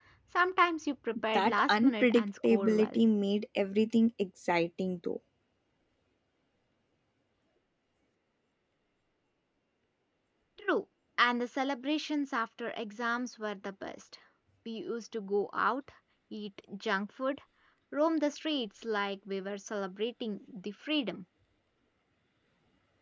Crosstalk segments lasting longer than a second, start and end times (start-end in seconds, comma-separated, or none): 1.3-3.0